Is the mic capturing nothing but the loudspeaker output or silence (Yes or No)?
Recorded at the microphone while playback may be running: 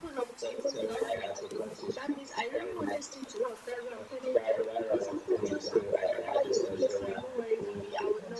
Yes